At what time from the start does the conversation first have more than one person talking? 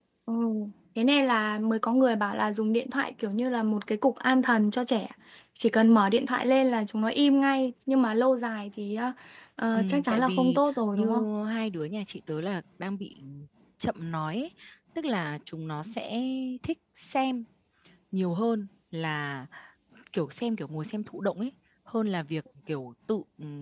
10 s

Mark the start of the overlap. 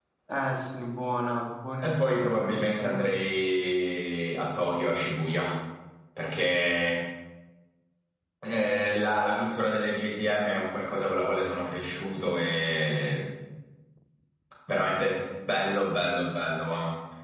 2 s

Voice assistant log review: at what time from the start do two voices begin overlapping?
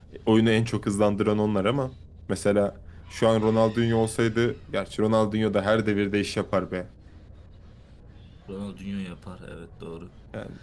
none

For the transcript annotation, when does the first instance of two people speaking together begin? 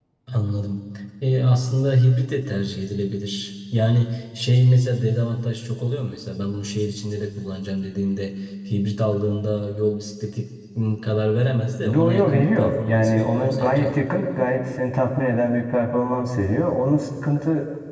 12 s

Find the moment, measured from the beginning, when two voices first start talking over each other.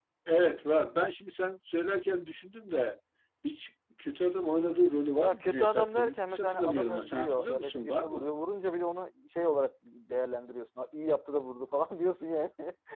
5 s

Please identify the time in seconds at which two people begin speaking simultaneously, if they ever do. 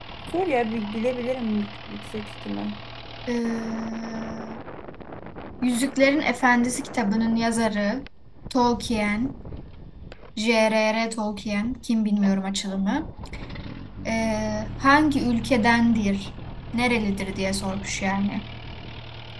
none

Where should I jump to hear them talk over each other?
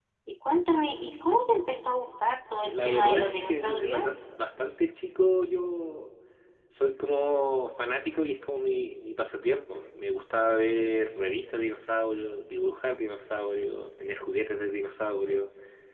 3 s

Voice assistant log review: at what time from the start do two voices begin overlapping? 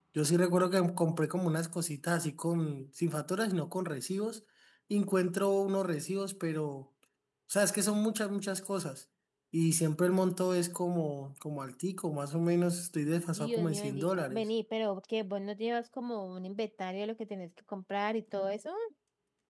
13 s

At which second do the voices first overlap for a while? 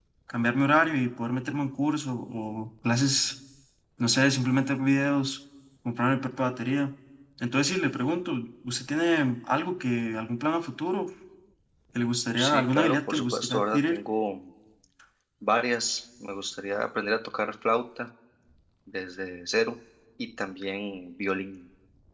12 s

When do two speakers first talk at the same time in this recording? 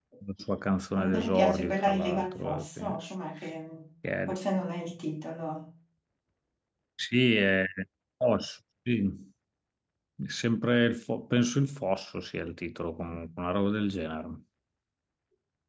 1 s

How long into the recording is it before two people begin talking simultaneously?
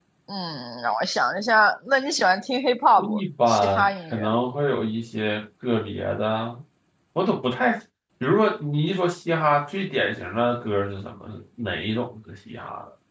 3 s

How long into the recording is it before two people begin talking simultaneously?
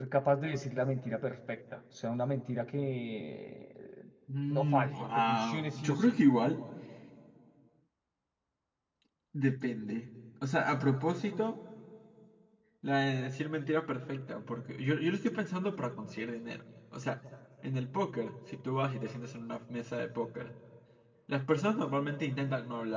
5 s

